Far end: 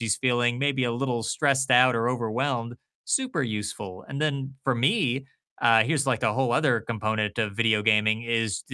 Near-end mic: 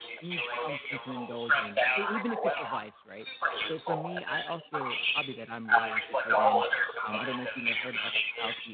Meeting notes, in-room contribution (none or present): present